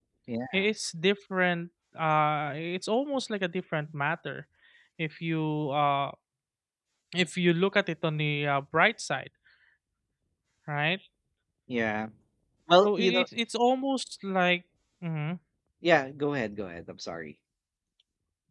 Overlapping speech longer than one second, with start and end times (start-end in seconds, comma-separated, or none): none